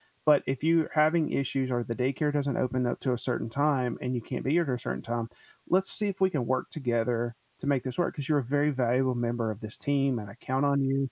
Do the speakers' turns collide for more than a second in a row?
No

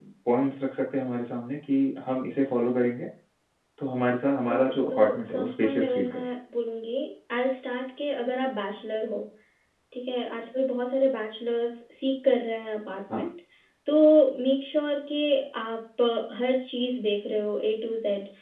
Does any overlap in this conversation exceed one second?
Yes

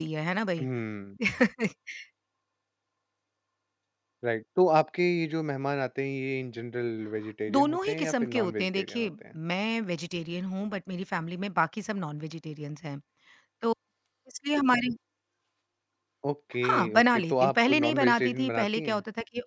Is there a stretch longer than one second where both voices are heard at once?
Yes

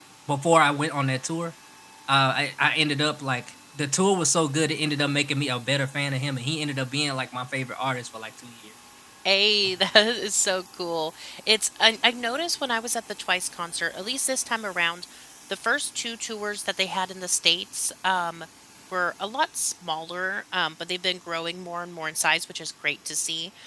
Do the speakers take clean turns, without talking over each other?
Yes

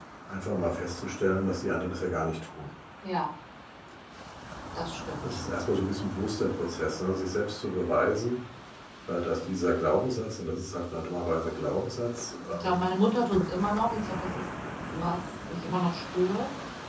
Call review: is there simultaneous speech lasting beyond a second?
No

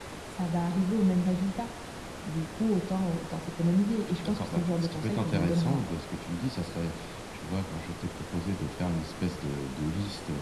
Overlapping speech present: Yes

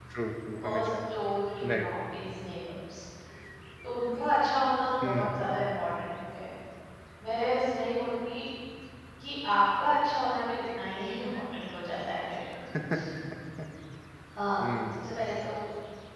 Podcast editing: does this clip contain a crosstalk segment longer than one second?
No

